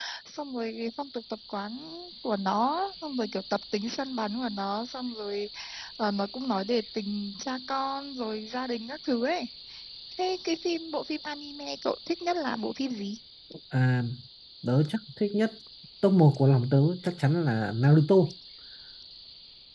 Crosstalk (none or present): none